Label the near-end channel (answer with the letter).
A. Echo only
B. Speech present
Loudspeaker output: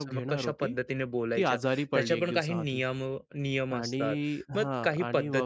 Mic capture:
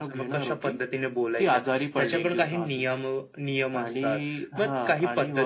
A